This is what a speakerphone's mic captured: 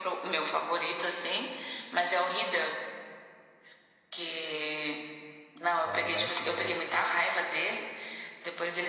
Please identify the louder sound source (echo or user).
echo